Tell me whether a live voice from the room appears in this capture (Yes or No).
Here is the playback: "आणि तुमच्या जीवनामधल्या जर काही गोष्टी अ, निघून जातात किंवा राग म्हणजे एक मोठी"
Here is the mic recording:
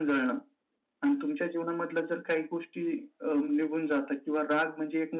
No